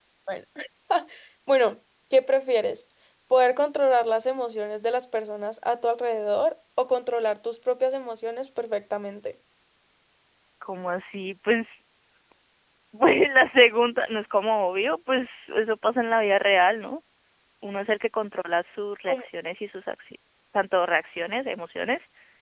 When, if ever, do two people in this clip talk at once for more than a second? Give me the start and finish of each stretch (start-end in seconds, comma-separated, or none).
none